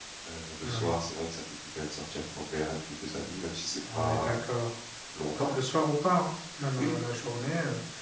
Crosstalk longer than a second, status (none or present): none